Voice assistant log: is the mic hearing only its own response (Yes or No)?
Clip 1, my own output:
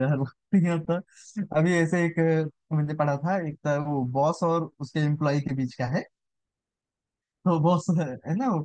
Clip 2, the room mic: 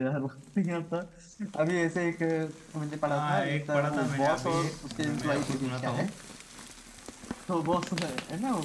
No